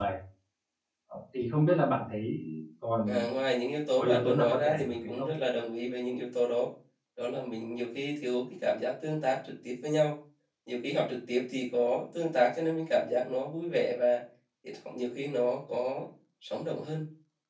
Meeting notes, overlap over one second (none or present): present